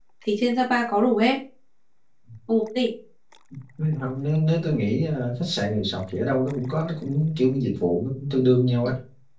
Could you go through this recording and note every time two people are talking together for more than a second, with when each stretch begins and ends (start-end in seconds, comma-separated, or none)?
none